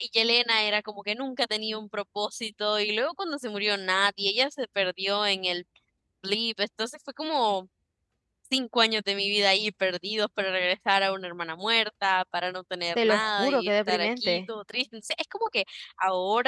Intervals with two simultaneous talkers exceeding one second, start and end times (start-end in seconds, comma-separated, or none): 13.0-14.4